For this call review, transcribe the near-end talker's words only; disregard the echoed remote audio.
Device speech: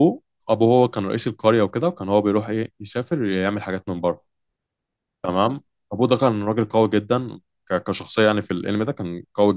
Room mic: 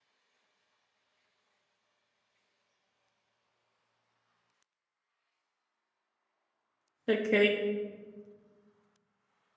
اوكي

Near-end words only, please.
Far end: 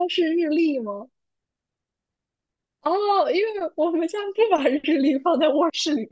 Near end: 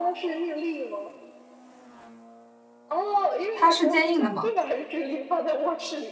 它是坚硬的吗？

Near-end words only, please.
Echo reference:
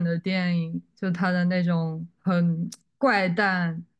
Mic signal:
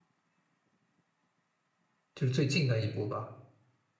就是最近的一部吧。

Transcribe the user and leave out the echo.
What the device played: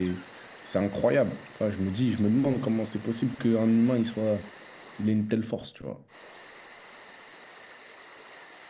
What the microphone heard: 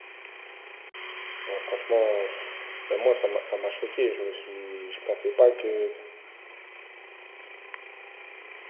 ouais, franchement, pff, ben moi, ça m'a ça m'a choqué. Je me suis, je pensais pas que.

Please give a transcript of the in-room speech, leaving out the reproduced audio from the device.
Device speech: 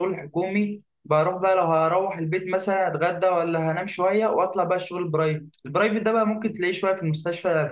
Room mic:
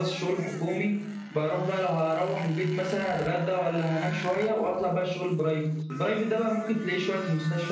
none

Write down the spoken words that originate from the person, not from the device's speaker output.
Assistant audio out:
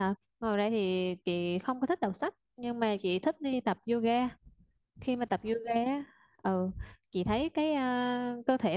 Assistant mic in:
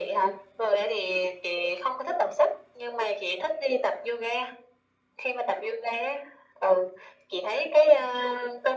none

